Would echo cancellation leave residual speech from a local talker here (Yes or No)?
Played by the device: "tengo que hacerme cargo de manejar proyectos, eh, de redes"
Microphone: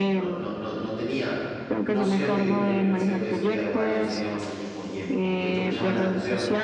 Yes